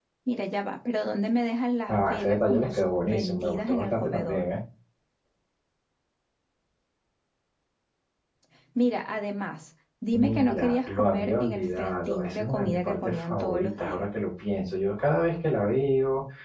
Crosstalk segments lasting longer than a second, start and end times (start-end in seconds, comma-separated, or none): 1.9-4.5, 10.1-14.1